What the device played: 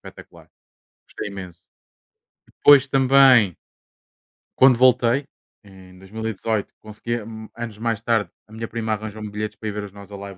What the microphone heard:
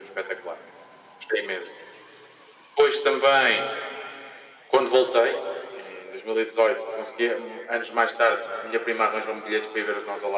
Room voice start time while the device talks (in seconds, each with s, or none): none